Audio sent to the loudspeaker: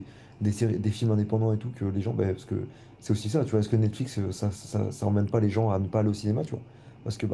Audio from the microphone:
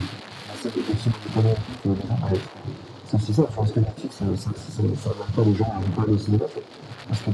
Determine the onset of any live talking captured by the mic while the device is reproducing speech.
none

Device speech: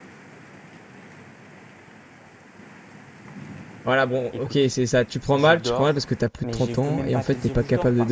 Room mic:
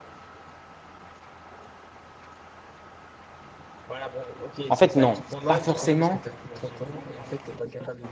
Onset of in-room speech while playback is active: 4.7 s

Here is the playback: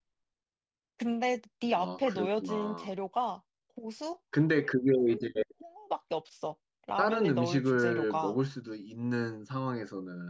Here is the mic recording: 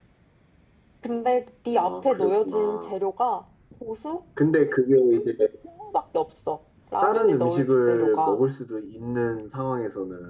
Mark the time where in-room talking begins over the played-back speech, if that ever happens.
none

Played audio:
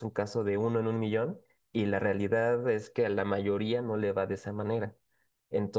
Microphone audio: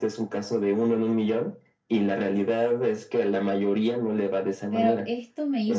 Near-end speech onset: 4.7 s

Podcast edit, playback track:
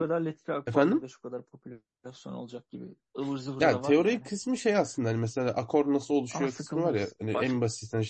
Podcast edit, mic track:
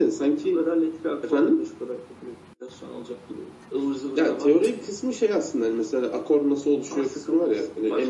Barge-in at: none

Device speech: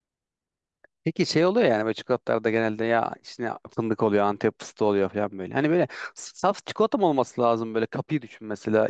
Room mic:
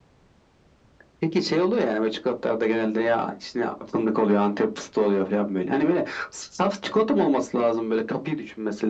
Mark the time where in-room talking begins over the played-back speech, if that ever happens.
none

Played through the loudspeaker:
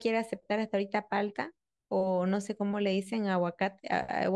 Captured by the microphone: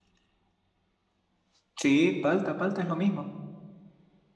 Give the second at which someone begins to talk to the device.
1.8 s

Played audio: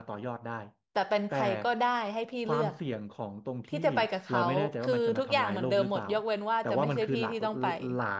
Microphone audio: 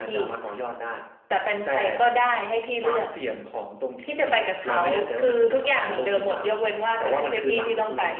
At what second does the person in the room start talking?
none

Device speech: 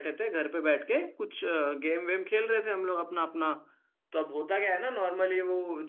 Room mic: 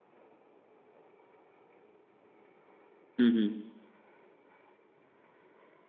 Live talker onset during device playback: 3.2 s

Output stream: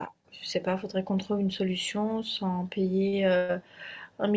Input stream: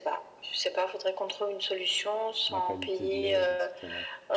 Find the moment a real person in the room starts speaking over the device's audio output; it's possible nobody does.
2.5 s

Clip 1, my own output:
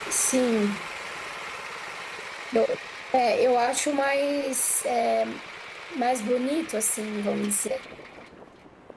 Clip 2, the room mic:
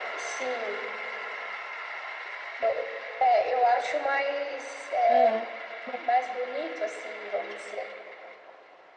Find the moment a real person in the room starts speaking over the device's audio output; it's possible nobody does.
5.0 s

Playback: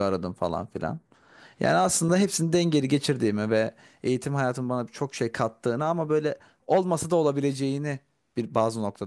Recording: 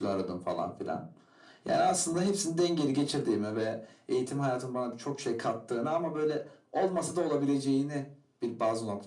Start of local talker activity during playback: none

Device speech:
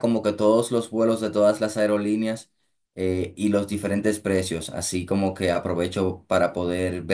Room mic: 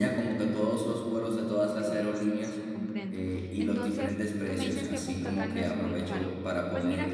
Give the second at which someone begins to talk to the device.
1.7 s

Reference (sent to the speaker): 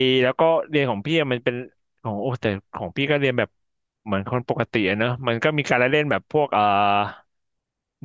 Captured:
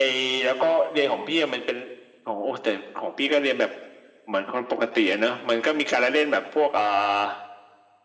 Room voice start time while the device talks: none

